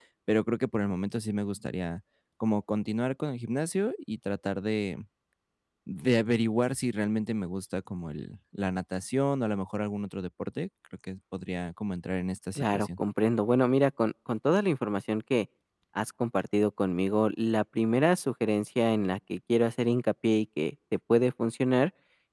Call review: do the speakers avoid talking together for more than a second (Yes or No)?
Yes